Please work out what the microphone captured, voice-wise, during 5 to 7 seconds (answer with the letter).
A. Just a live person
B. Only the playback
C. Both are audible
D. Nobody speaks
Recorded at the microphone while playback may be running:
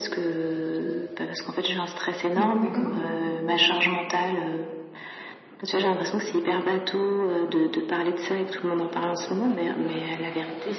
B